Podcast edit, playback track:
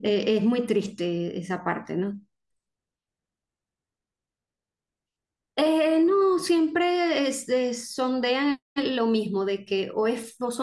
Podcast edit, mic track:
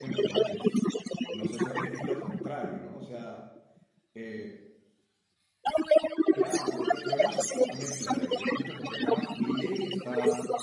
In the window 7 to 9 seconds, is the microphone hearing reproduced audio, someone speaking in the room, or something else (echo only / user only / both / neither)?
both